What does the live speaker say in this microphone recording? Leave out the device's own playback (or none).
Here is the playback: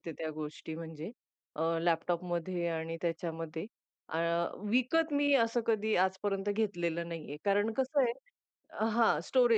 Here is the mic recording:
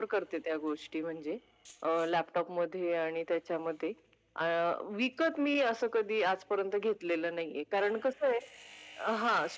none